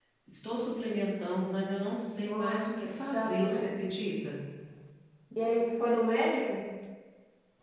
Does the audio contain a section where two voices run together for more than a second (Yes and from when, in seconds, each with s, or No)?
Yes, from 2.2 s